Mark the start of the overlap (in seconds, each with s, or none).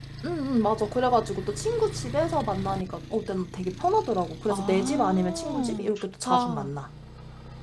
4.5 s